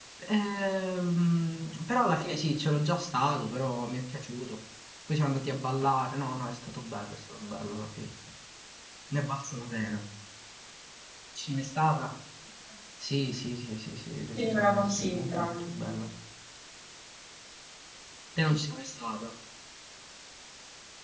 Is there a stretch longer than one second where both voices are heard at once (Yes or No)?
Yes